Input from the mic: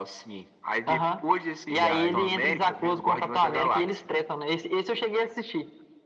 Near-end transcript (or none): E aí